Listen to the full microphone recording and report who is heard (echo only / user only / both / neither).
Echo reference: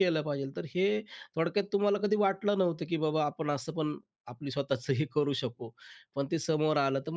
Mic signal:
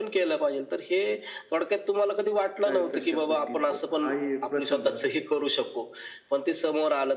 both